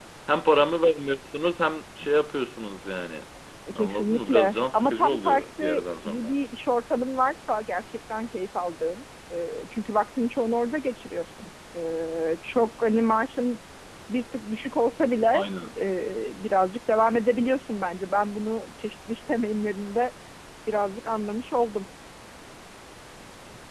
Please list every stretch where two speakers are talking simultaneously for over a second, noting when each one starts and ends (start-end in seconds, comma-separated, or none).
3.8-6.3